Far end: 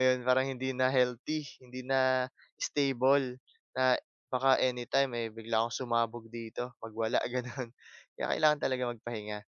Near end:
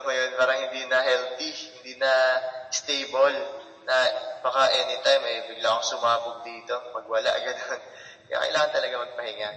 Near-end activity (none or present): none